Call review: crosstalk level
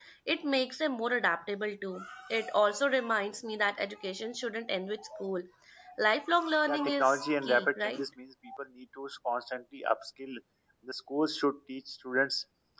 present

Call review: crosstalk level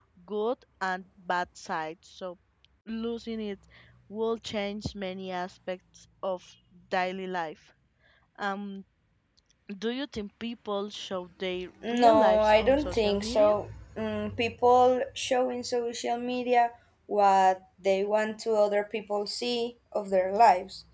present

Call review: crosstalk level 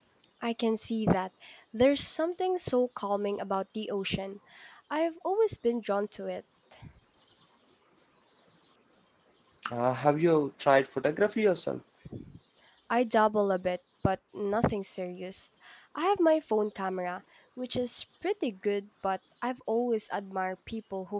none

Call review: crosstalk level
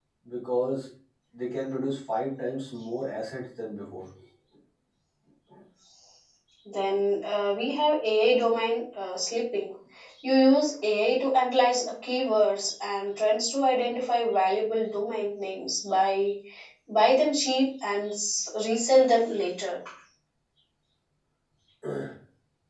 none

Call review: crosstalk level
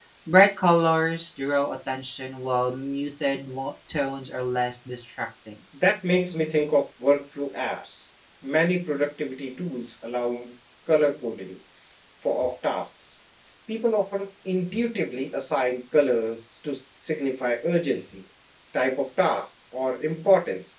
none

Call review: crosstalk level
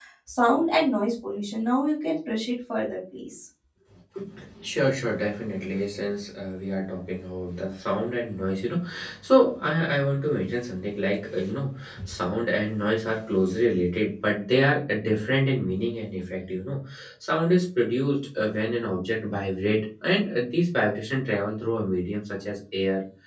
none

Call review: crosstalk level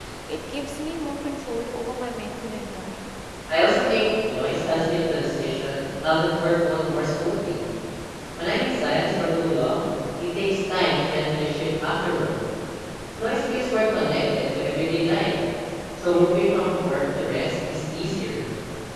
none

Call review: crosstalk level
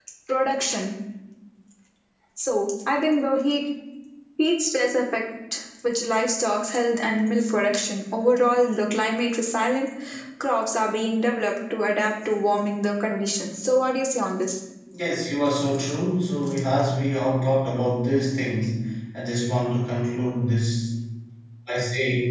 none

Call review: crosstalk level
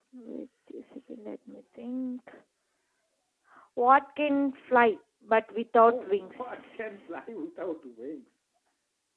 present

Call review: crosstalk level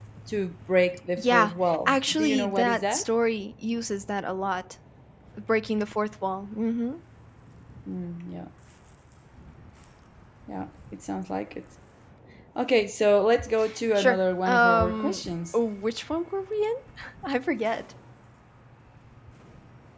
present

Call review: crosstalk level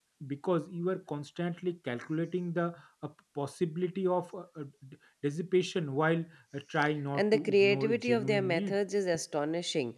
present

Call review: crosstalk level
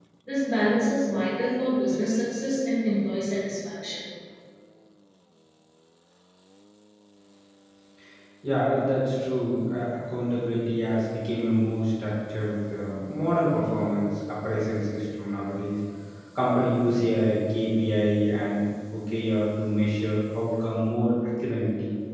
none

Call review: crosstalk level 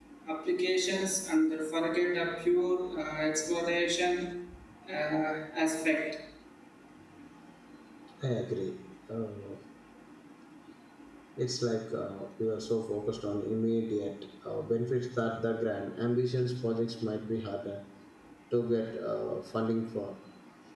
none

